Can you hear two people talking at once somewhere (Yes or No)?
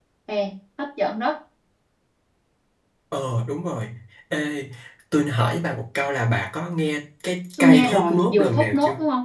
Yes